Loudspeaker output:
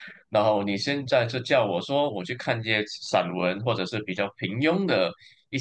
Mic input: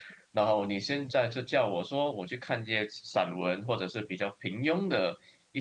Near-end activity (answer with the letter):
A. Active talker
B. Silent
B